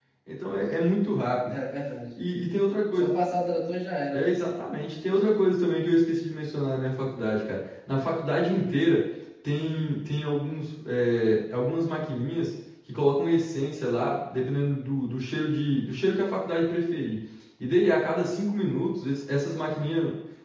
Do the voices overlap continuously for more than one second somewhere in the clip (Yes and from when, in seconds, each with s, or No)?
No